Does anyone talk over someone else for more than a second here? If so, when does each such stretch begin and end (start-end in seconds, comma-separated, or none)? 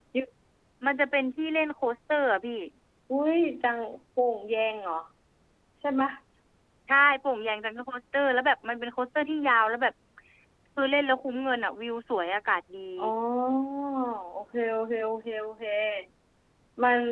none